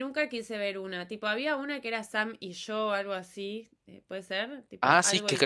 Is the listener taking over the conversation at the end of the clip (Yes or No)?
Yes